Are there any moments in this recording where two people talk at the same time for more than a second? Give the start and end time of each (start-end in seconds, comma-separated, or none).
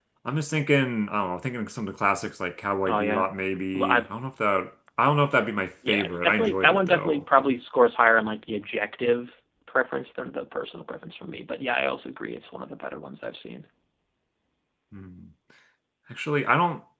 5.9-7.2